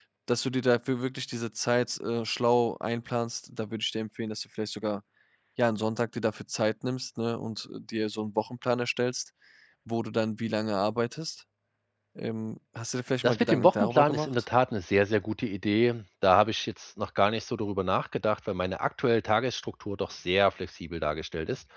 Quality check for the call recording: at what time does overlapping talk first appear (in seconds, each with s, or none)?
13.2 s